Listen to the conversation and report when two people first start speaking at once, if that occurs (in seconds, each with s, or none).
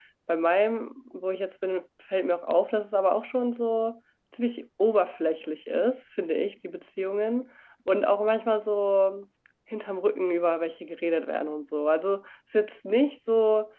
none